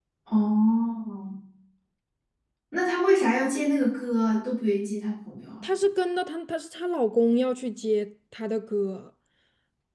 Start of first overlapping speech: none

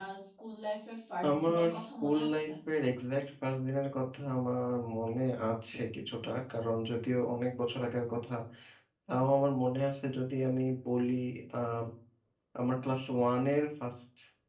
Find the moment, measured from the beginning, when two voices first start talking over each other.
1 s

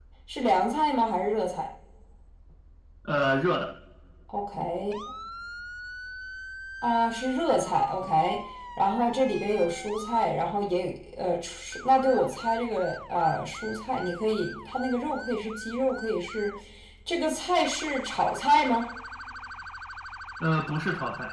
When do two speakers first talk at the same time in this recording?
none

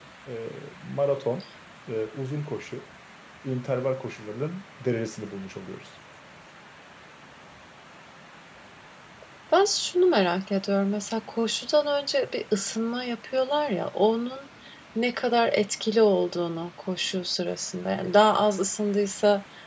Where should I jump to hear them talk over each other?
none

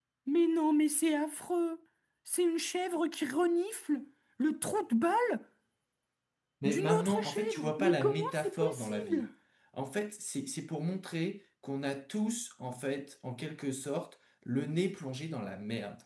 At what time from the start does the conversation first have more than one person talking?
7 s

